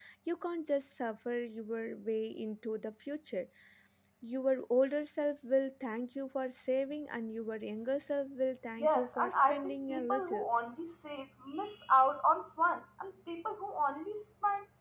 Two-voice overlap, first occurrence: 8.8 s

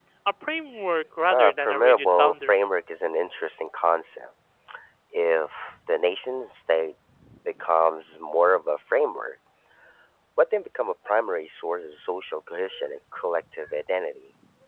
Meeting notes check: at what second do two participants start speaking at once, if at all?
1.3 s

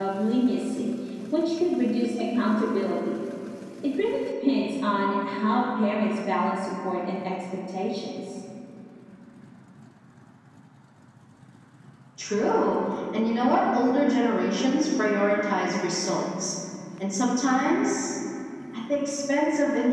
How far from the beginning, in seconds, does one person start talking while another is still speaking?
none

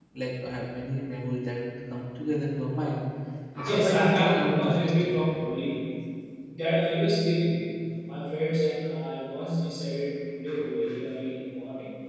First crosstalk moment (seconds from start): 3.6 s

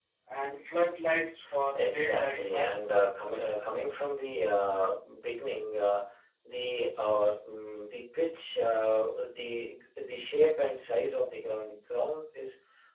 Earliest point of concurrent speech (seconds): 1.8 s

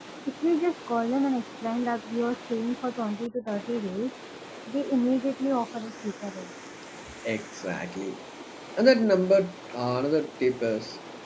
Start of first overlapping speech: none

